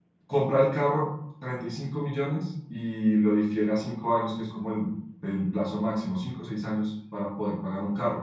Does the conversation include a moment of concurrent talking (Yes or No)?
No